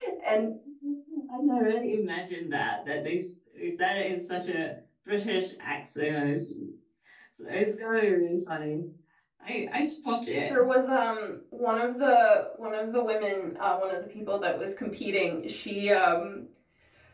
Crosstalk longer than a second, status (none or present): none